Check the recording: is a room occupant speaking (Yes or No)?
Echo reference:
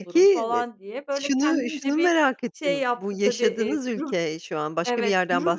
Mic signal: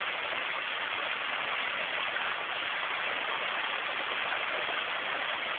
No